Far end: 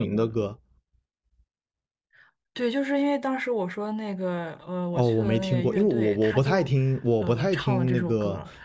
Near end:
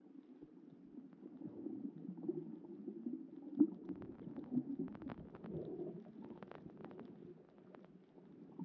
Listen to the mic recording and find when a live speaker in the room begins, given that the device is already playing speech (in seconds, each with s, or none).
none